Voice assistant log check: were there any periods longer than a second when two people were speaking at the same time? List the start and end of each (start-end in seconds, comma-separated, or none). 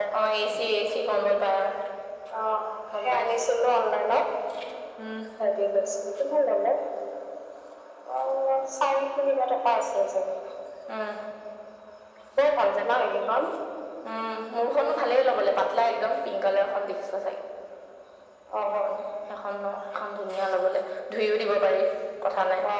none